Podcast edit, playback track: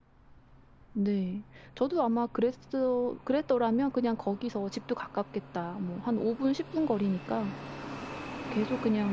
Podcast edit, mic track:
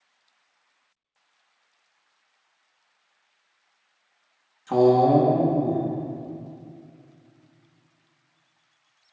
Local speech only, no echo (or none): 어.